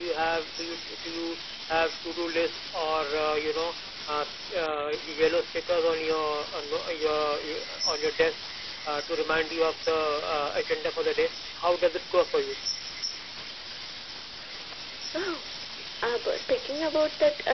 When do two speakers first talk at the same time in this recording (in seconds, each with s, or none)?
none